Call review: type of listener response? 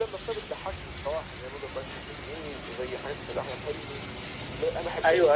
taking over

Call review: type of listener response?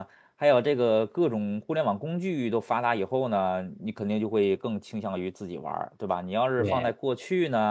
listening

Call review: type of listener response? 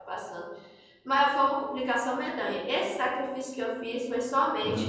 listening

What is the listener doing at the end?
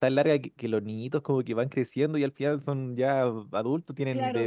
taking over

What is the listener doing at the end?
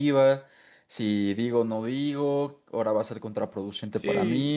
listening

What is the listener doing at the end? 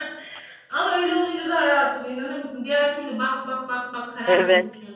taking over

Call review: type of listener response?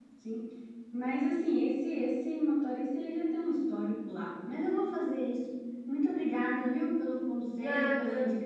listening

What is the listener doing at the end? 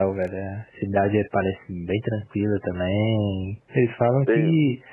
listening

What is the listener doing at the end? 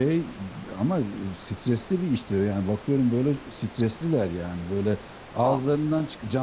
listening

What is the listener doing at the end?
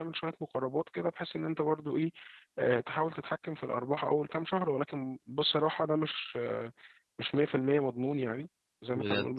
listening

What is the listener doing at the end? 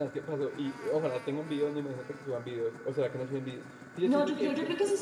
taking over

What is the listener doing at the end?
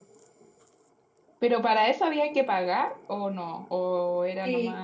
taking over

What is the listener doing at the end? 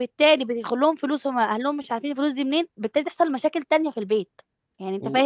listening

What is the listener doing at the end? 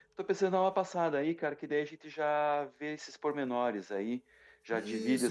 taking over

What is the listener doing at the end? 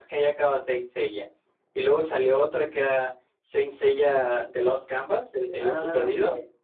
taking over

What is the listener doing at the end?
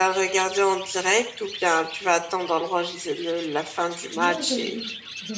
taking over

